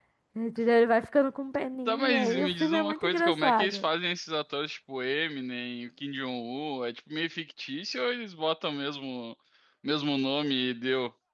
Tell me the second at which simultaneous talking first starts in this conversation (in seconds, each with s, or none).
1.9 s